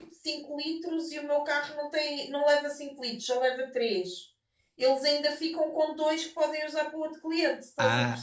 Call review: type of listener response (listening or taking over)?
taking over